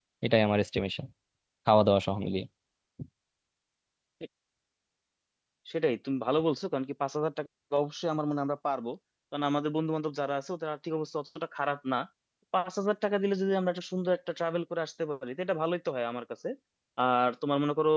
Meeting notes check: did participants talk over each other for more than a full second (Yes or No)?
No